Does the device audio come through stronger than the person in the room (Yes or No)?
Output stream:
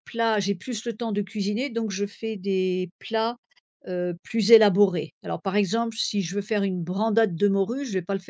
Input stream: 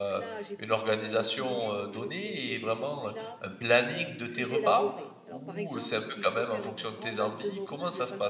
No